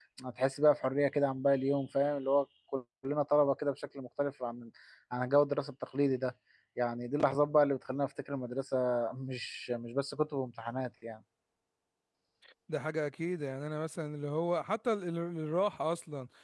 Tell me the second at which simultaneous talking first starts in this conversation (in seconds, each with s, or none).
none